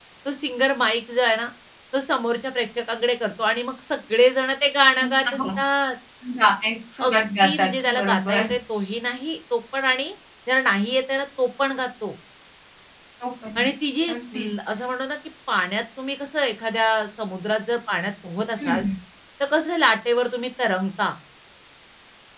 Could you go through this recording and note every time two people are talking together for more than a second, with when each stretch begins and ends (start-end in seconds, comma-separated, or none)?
7.1-8.5